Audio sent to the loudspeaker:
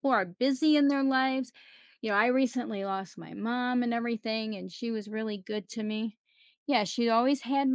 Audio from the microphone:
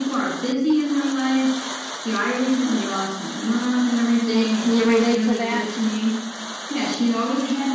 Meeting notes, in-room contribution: present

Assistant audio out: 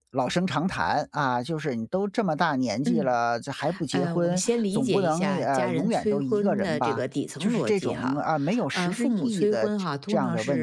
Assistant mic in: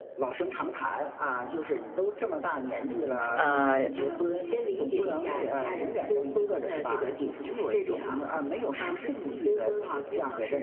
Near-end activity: present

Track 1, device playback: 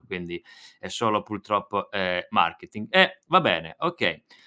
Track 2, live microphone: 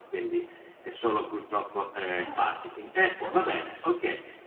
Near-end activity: present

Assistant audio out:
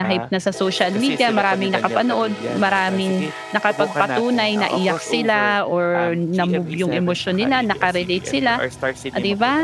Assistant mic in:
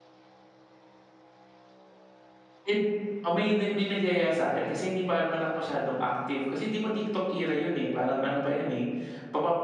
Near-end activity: present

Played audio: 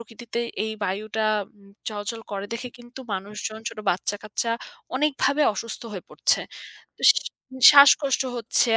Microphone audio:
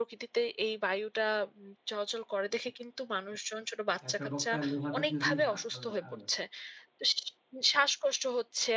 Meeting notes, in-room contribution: present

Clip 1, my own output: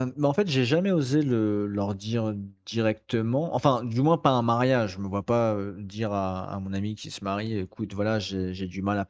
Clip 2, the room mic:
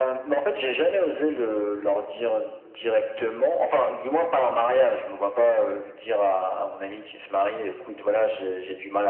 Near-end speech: none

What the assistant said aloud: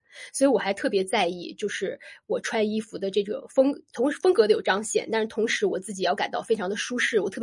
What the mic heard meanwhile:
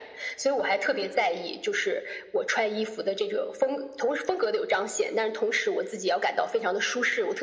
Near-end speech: none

